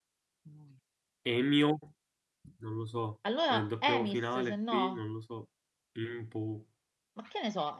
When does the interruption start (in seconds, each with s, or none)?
3.5 s